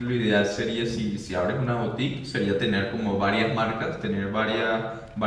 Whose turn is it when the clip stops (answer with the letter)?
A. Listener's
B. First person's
B